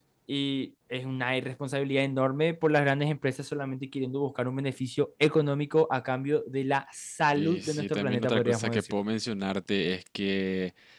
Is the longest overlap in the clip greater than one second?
Yes, from 7.3 s

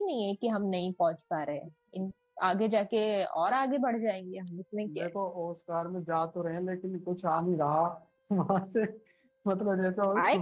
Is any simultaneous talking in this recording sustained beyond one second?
No

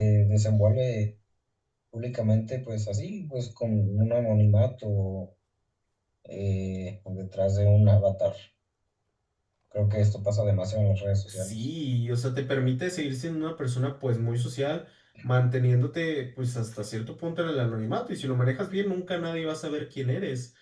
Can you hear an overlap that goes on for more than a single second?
No

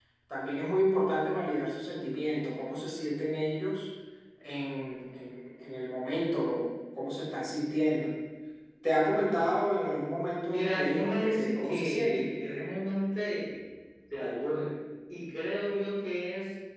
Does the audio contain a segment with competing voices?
Yes, from 10.4 s

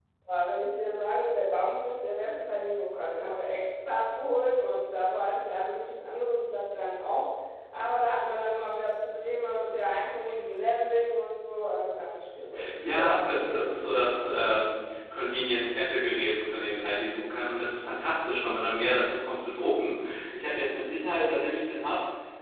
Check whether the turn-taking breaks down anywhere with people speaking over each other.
Yes, from 12.8 s

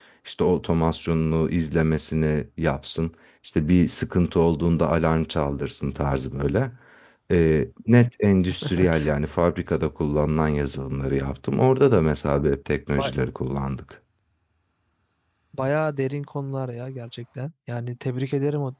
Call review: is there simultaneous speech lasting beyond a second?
No

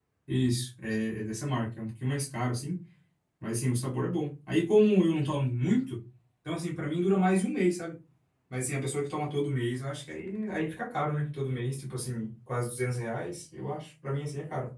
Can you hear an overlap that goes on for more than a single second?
No

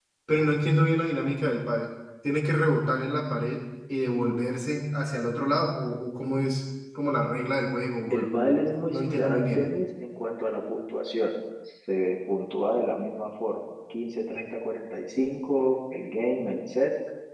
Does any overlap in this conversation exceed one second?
Yes, from 8.1 s

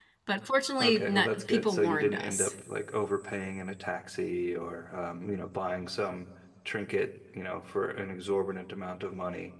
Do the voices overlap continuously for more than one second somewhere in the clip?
Yes, from 0.8 s

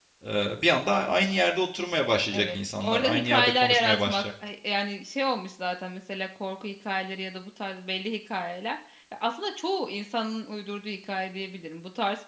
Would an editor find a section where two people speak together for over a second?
Yes, from 2.3 s

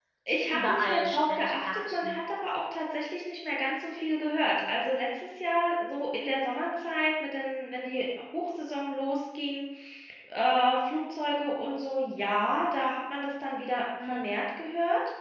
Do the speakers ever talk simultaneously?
Yes, from 0.5 s

